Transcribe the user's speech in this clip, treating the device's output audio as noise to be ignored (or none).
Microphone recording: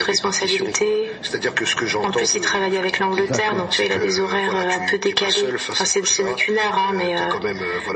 D'accord, d'accord.